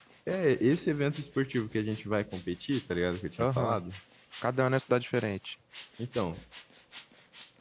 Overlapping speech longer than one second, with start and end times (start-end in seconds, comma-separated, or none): none